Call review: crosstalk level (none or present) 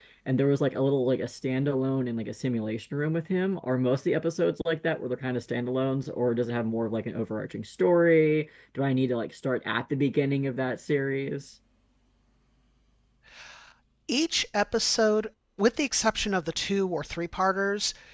none